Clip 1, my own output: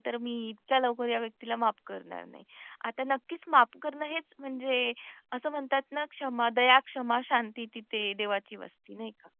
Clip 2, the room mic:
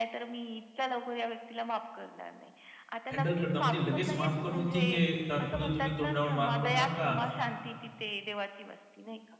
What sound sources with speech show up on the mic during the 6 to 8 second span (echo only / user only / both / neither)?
both